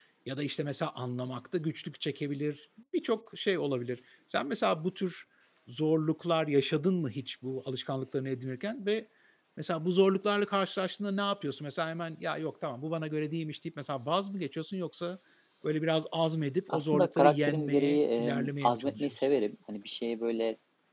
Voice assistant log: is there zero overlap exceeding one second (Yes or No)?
No